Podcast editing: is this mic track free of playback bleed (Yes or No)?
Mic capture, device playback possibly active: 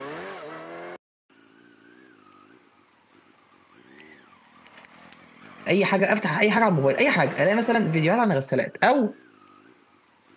Yes